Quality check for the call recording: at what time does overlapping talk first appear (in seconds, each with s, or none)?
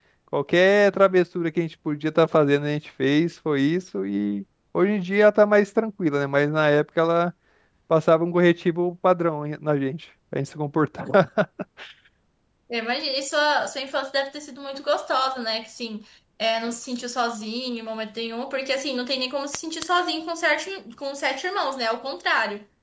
none